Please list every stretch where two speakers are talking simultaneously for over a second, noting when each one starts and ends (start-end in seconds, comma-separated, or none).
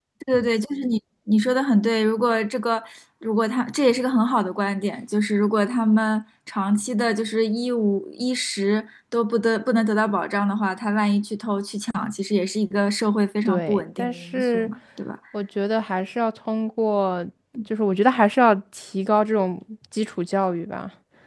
13.5-14.7